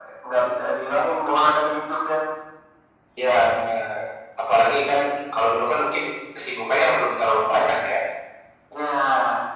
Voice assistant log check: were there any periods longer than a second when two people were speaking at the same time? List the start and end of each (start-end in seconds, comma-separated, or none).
none